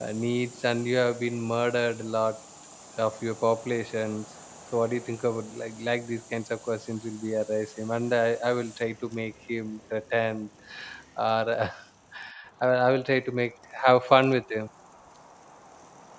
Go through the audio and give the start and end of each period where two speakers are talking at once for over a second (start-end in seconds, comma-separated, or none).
none